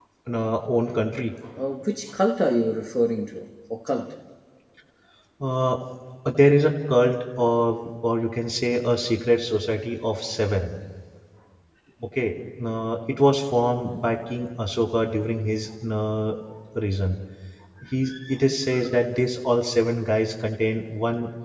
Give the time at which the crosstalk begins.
none

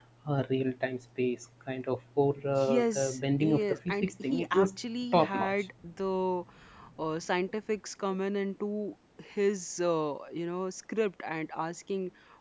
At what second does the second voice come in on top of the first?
2.7 s

